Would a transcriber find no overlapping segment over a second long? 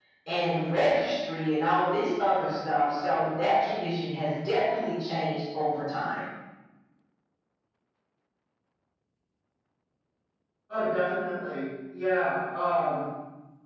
Yes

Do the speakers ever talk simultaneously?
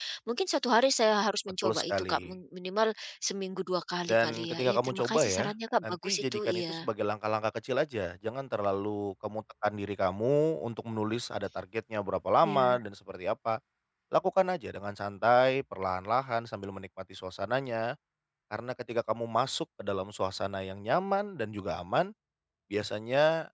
Yes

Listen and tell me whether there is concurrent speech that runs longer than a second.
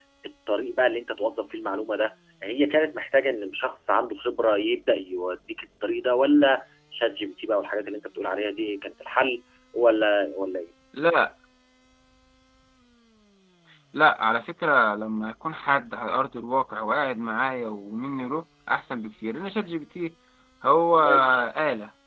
No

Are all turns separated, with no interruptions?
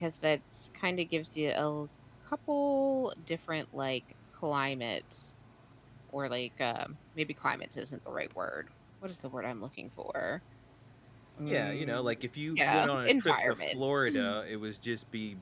No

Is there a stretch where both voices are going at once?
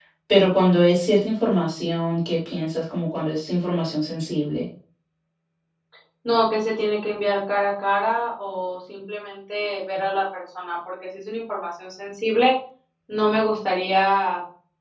No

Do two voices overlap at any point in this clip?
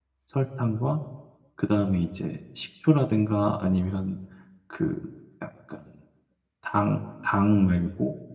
No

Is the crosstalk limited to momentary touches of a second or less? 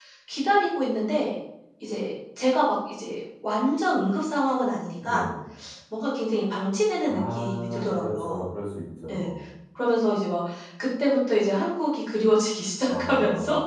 No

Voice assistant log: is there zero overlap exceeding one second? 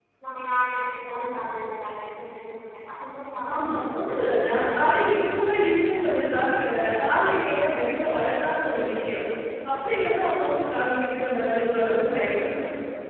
No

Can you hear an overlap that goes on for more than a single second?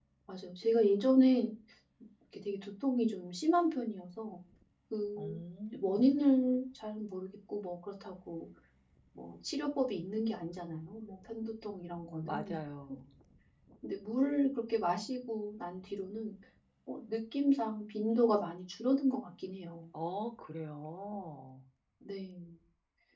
No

